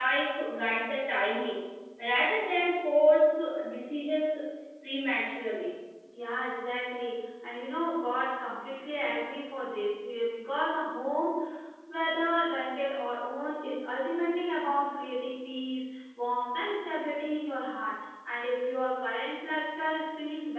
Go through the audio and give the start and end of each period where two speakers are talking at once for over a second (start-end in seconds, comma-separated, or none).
none